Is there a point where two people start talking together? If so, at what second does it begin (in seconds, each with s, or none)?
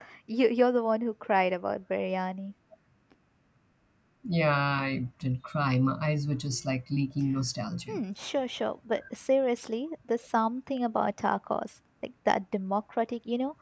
none